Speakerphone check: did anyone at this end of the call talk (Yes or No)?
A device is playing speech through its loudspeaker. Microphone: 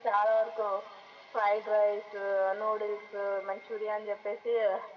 No